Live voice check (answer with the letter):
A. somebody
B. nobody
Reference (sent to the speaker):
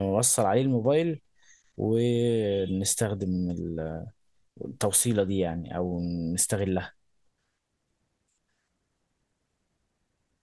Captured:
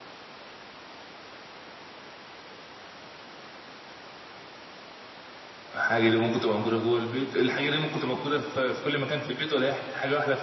A